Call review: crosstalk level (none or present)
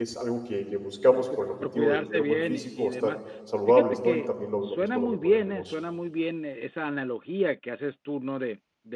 present